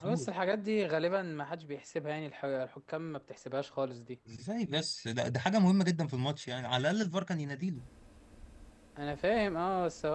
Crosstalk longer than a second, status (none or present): none